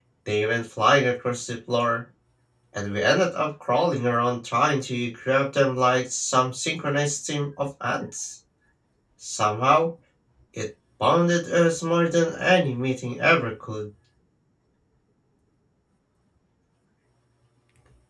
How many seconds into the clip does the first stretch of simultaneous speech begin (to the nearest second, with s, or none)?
none